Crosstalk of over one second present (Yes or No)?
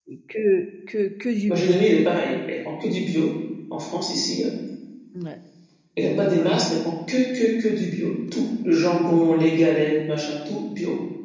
No